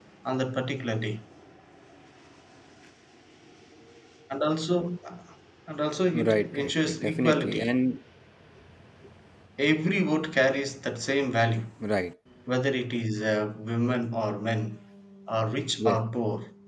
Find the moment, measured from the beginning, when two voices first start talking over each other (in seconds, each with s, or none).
6.1 s